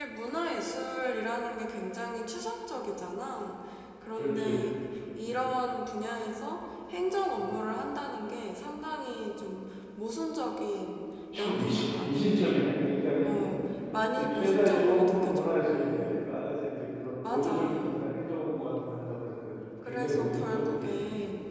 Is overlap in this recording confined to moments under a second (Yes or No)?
No